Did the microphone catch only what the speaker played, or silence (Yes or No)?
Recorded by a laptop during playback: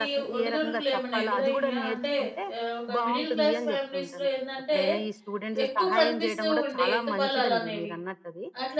No